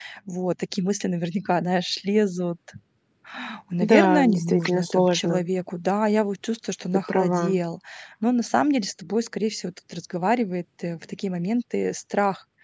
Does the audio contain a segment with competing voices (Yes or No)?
Yes